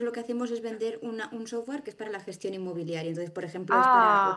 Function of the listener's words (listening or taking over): listening